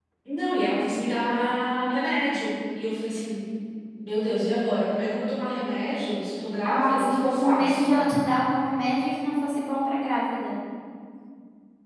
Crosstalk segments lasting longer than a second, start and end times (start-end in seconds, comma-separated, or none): 6.7-7.9